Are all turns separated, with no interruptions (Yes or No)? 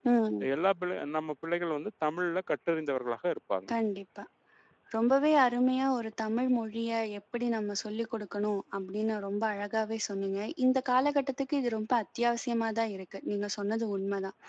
Yes